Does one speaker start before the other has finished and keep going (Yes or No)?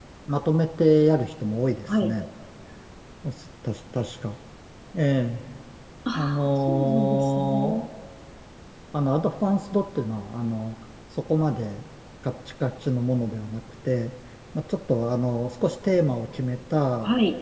Yes